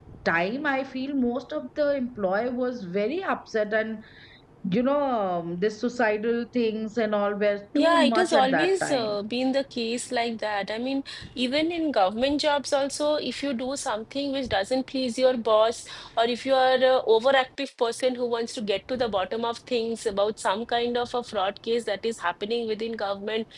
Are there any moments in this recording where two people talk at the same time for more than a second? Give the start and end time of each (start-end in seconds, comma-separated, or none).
7.8-9.2